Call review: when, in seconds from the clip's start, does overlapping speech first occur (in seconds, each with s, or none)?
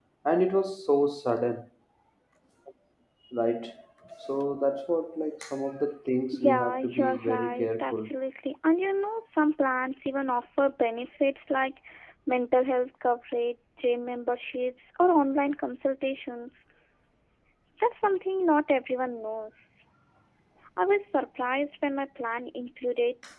6.3 s